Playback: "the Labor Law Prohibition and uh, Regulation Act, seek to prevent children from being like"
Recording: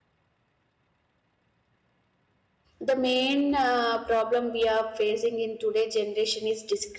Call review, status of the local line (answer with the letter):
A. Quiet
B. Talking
B